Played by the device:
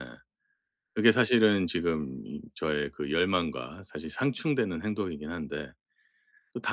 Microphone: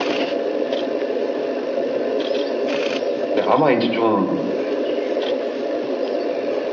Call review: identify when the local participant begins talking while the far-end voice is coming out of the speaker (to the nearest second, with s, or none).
3 s